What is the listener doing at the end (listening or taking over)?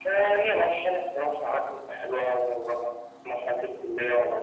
listening